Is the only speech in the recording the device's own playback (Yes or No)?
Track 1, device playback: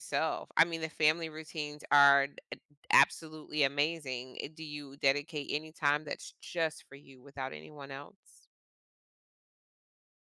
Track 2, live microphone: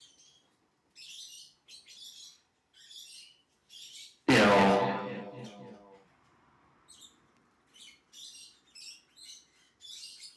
No